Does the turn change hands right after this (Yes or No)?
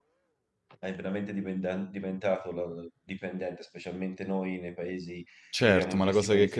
Yes